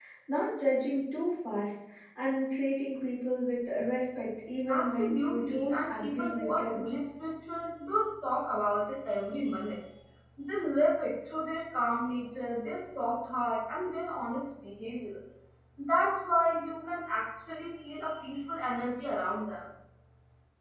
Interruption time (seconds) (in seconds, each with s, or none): 4.7 s